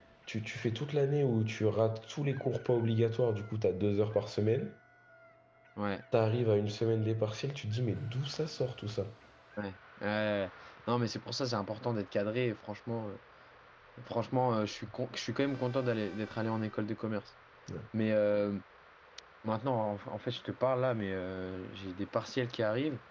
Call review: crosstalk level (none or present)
none